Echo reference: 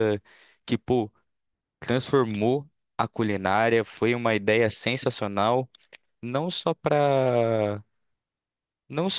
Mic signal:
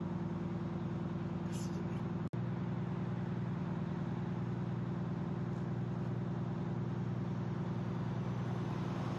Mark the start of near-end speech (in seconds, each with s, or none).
none